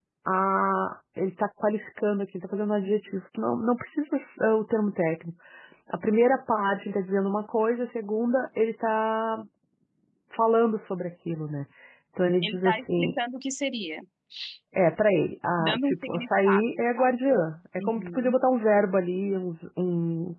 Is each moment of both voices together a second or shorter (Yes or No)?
No